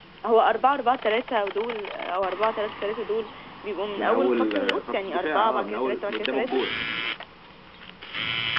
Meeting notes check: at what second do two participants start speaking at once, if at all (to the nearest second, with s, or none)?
4 s